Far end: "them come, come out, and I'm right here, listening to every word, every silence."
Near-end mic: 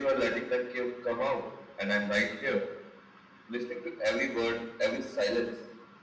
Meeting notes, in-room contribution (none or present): none